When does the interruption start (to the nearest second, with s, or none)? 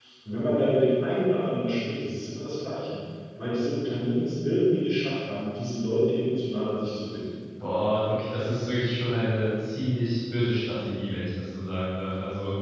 none